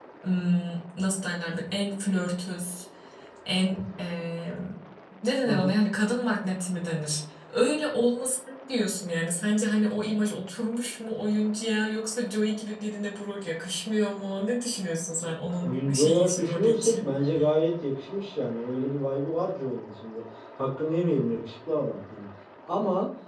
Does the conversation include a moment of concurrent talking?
Yes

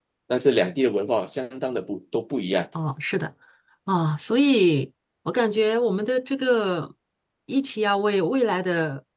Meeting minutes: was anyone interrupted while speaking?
No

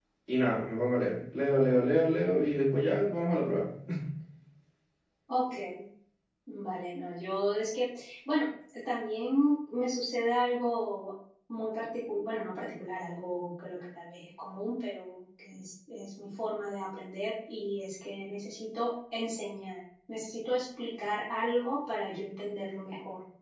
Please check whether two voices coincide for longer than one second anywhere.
No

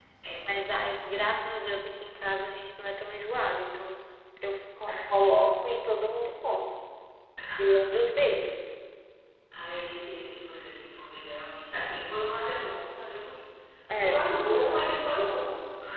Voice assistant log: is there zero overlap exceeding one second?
Yes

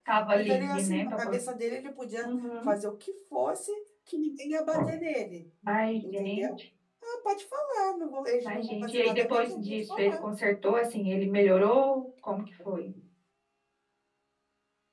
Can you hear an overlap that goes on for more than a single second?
Yes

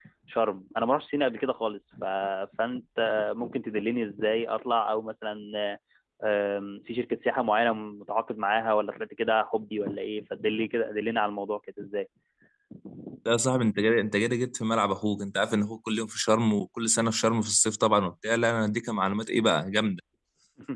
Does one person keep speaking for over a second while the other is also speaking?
No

